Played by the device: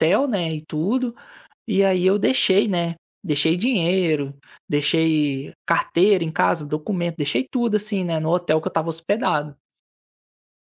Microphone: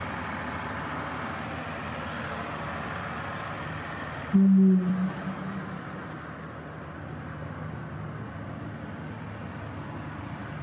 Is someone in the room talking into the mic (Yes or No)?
Yes